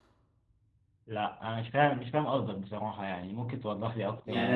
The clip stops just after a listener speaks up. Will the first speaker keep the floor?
No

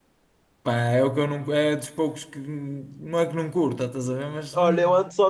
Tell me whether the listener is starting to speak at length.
Yes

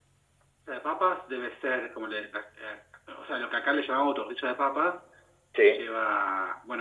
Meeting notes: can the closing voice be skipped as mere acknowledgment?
Yes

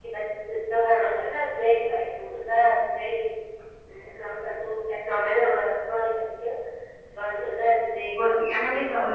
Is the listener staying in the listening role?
No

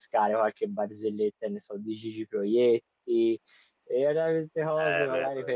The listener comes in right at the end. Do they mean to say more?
No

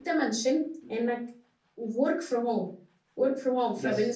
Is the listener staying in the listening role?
Yes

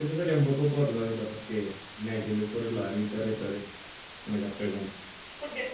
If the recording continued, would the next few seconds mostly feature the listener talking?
Yes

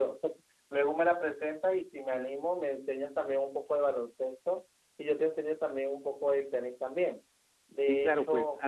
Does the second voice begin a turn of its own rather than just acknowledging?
Yes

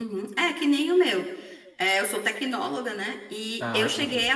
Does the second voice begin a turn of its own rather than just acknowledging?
No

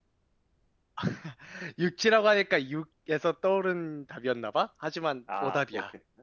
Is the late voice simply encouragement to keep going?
No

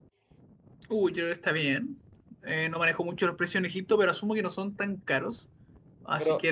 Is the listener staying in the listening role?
No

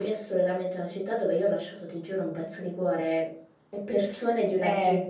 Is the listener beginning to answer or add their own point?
No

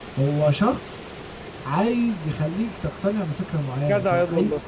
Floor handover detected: Yes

